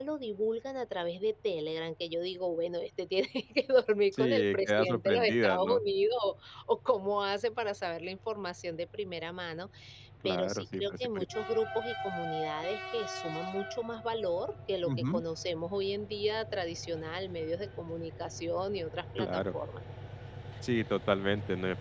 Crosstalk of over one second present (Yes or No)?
Yes